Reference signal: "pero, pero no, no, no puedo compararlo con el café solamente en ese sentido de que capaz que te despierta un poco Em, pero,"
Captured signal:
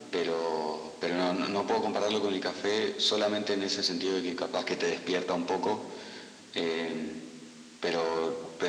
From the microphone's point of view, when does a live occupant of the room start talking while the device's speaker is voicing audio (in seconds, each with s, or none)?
none